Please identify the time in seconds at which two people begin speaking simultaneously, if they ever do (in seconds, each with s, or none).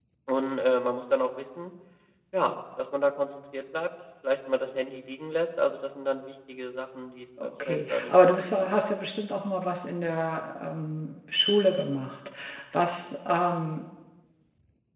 7.4 s